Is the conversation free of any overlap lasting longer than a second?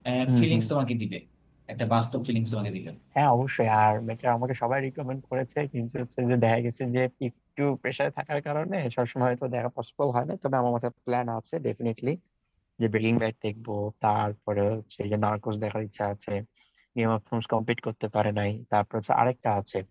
Yes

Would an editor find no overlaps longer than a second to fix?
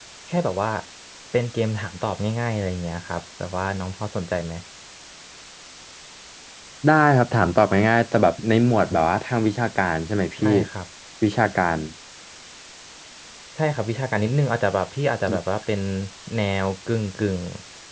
Yes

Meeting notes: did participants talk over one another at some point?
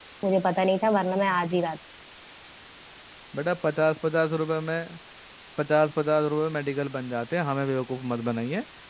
No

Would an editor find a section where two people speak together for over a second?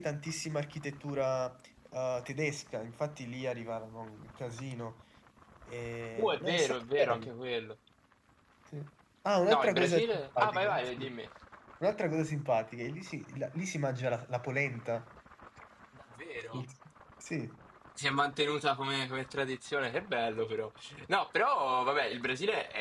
Yes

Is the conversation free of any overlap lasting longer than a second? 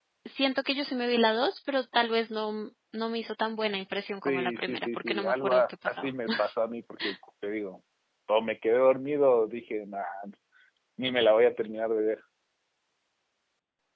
No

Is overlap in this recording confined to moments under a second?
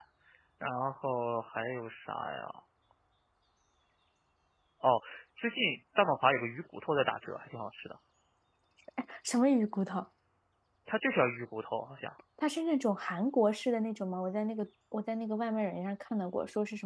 Yes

